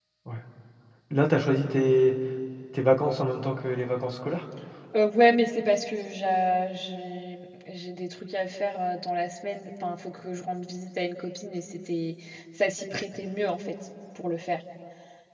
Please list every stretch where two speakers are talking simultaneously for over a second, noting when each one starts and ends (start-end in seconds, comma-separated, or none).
none